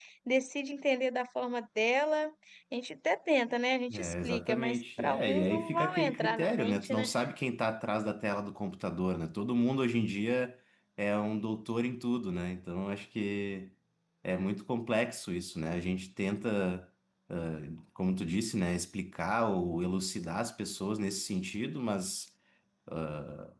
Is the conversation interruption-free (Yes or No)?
No